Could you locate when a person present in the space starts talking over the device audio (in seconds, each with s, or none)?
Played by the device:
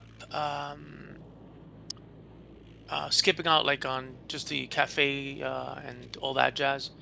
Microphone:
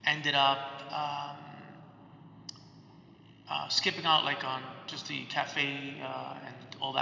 none